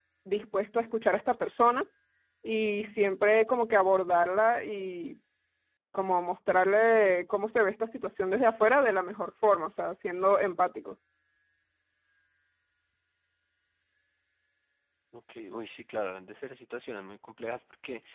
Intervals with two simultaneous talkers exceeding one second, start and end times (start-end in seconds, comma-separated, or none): none